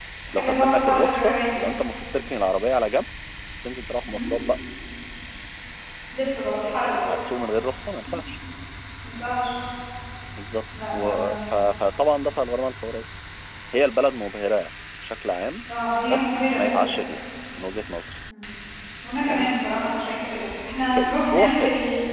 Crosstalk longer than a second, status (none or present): present